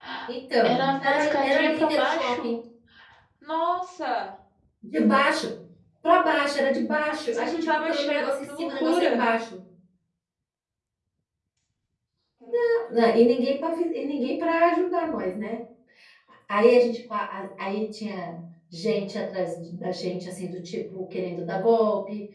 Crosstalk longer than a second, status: present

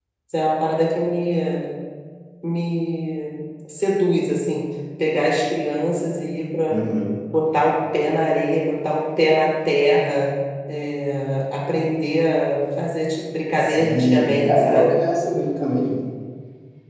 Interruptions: present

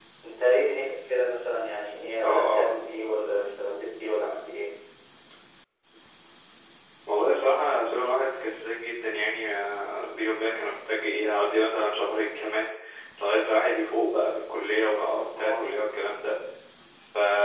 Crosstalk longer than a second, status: none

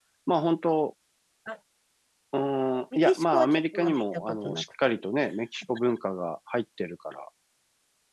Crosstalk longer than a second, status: present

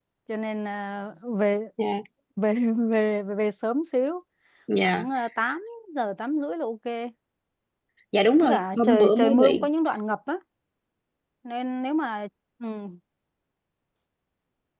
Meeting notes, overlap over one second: present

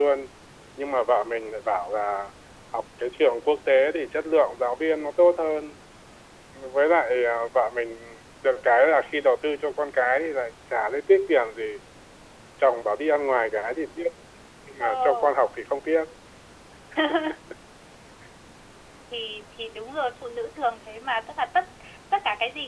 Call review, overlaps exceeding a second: none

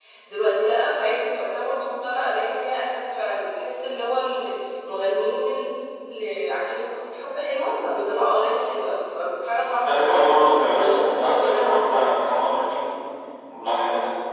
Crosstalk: present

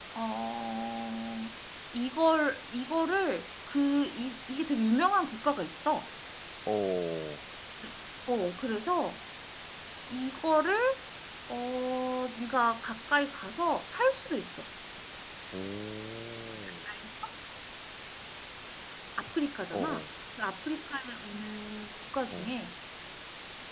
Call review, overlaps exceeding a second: none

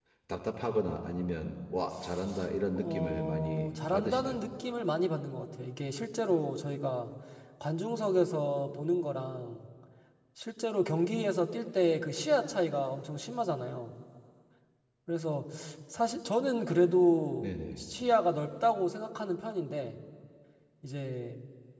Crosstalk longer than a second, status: present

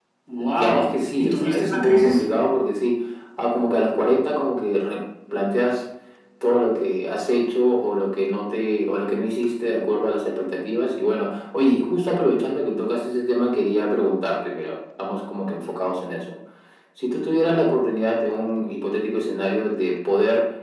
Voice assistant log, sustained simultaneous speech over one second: present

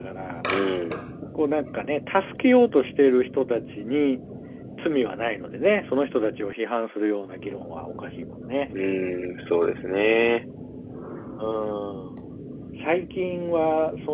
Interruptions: none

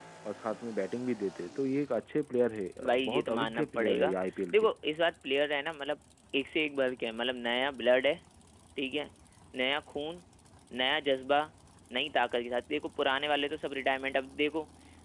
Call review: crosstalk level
present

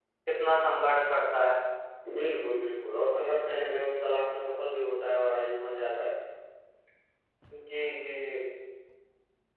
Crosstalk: none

